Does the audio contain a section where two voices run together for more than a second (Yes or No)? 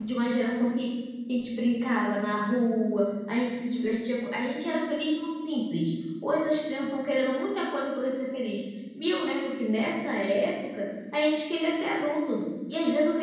No